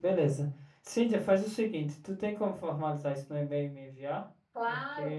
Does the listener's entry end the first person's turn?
Yes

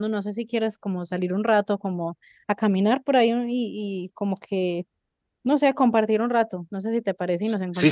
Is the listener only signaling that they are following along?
No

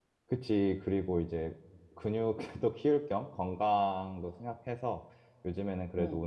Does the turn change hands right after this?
No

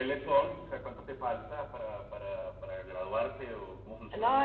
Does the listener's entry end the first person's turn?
Yes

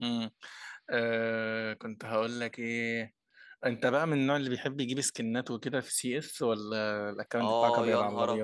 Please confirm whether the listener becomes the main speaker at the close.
Yes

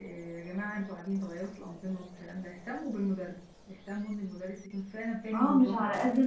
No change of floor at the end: No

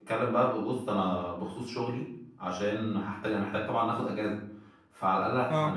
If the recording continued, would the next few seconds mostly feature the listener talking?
No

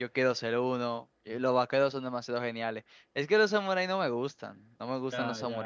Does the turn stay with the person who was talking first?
No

